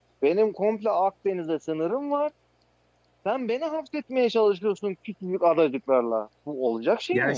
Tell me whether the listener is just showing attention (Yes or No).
No